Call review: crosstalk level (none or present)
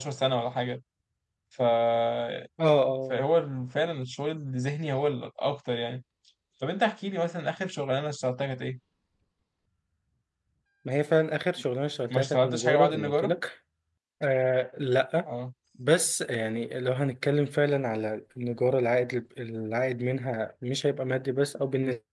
present